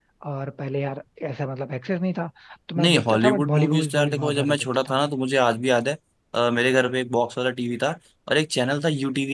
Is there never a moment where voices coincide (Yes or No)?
No